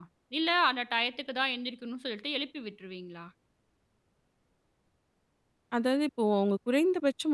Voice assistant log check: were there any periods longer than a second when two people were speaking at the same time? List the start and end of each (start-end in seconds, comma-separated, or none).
none